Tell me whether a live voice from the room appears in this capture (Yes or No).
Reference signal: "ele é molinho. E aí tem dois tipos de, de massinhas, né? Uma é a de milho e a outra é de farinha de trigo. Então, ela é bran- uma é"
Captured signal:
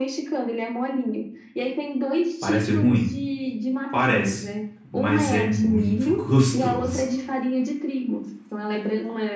Yes